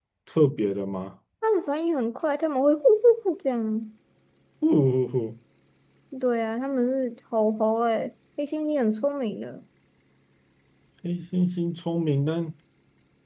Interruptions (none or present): none